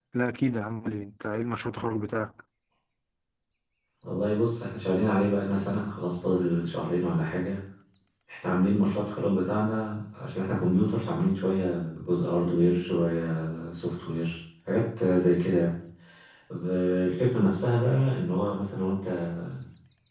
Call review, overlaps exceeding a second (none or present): none